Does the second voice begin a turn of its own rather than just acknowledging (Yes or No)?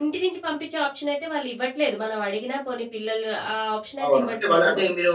Yes